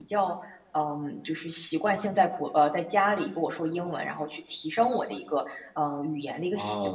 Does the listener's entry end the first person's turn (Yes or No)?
Yes